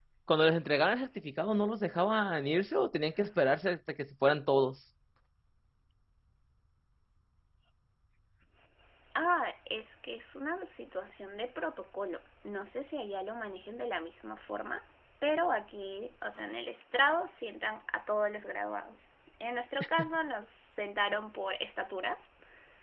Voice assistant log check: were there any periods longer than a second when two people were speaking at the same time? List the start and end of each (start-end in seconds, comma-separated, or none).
none